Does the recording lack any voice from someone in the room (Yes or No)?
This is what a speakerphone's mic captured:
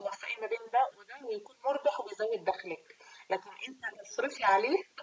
Yes